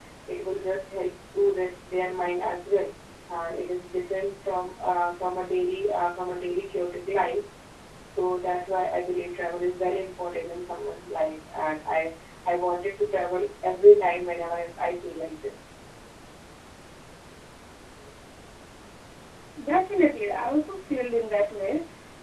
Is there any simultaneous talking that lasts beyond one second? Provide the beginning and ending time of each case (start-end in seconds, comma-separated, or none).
none